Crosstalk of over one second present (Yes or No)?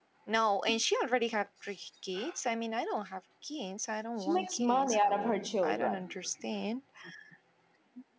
Yes